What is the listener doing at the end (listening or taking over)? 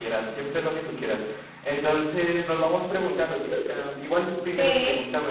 listening